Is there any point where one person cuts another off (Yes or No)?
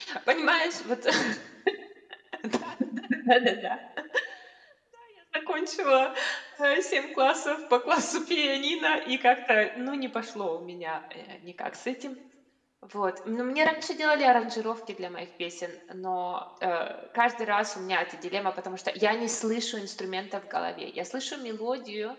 No